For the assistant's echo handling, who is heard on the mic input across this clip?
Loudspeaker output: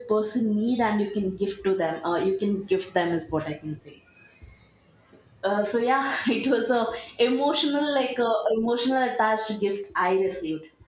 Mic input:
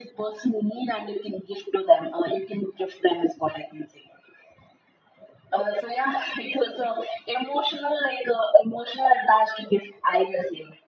echo only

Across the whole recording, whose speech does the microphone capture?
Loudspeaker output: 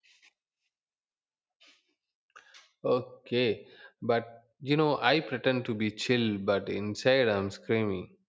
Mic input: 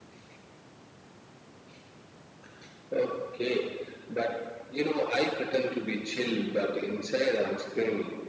echo only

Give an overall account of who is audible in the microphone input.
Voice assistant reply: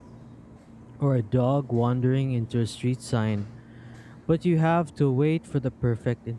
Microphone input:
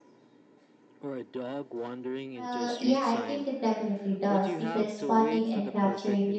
both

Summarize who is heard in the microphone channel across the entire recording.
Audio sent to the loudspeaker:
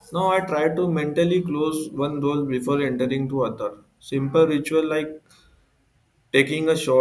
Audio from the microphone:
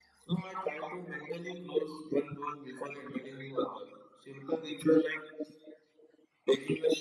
echo only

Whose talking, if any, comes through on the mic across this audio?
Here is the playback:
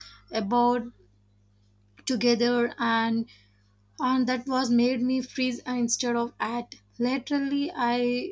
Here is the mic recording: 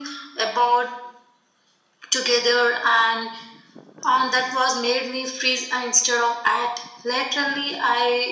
echo only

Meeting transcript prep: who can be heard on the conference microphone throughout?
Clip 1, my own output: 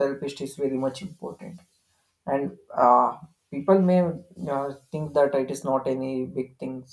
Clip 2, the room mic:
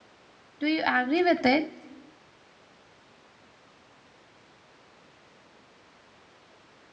user only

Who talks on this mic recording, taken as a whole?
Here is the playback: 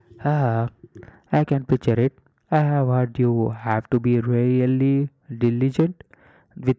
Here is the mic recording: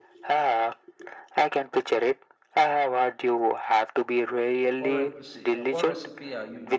both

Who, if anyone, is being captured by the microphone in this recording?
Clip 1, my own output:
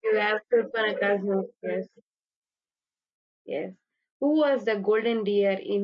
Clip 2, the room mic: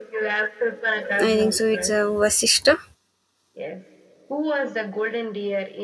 both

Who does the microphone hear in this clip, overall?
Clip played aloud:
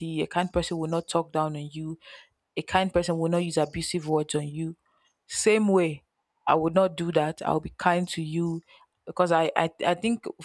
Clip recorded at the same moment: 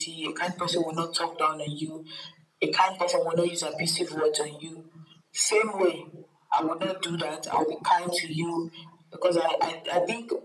echo only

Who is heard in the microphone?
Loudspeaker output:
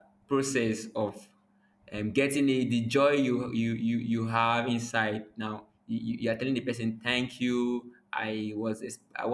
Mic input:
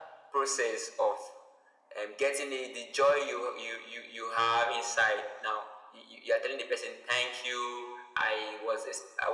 echo only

